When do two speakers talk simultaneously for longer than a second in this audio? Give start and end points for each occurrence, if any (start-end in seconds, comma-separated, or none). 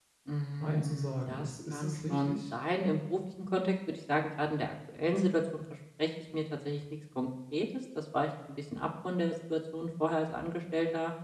0.6-2.5